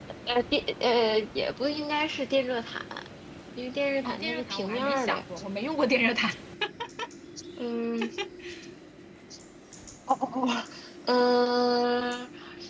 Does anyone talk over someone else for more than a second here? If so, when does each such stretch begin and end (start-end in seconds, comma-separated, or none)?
4.0-5.2